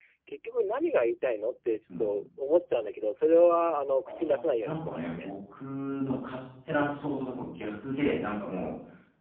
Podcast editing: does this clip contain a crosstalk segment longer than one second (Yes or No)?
Yes